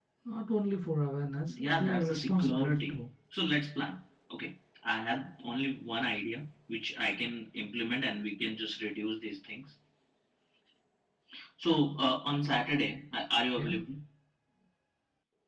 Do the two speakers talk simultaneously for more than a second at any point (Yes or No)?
Yes